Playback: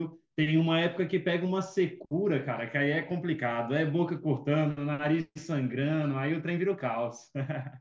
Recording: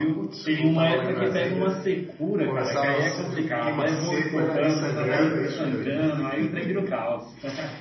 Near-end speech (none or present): present